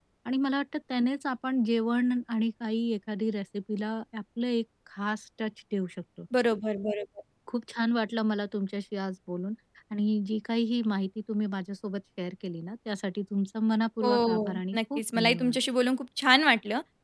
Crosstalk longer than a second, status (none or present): present